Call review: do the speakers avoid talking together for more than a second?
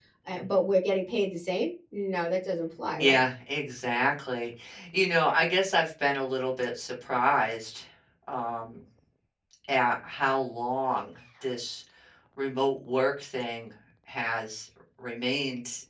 Yes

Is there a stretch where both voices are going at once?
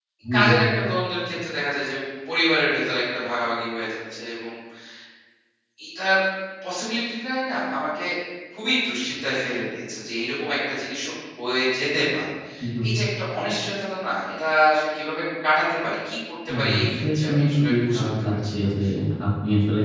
Yes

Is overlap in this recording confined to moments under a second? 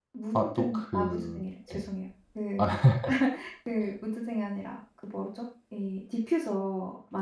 No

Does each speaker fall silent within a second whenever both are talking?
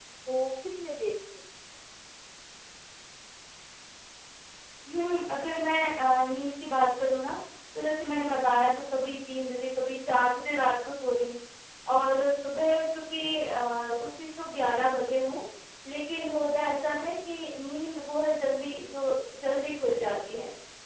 Yes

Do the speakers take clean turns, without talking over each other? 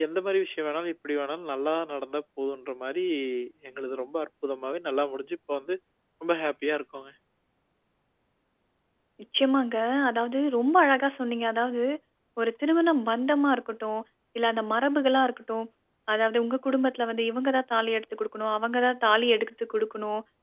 Yes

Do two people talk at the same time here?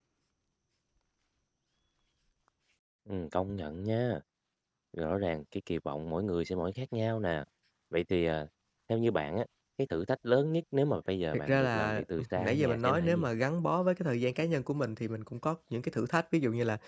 Yes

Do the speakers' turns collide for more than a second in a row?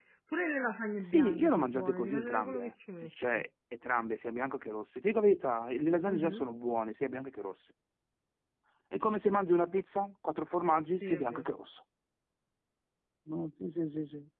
Yes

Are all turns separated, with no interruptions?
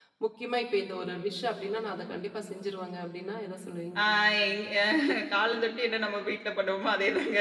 Yes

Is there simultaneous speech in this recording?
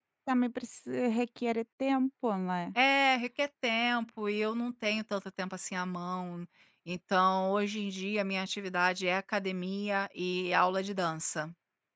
No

